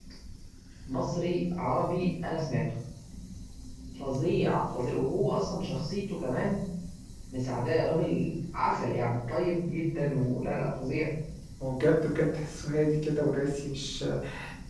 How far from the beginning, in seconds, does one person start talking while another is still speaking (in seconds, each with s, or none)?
none